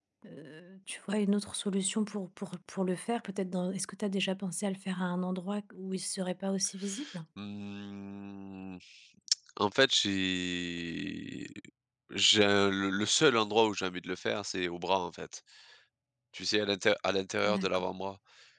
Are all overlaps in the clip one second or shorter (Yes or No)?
Yes